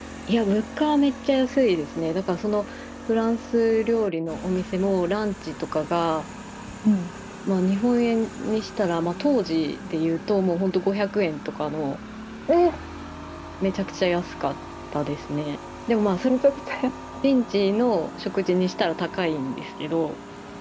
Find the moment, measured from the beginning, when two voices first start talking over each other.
none

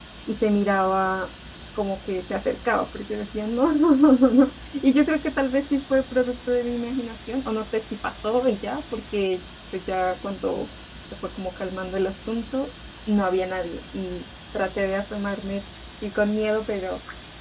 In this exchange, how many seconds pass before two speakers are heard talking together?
none

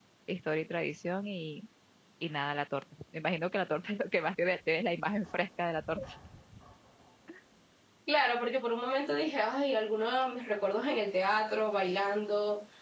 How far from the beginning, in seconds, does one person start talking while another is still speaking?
none

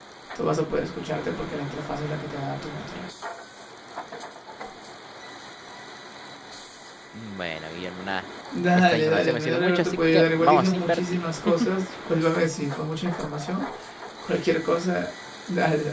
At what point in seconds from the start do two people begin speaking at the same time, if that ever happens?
9 s

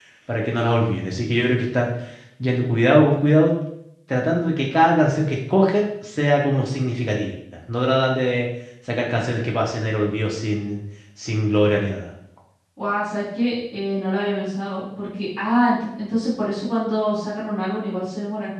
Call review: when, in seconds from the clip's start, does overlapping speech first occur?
none

